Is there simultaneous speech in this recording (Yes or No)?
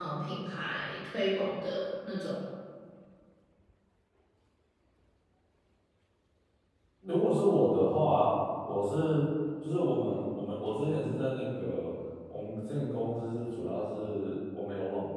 No